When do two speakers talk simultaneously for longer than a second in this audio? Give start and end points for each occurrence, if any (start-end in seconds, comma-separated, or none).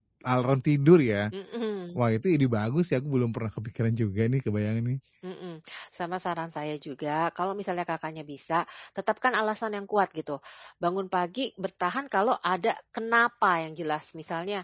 none